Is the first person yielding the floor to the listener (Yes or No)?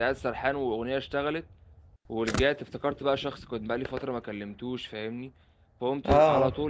No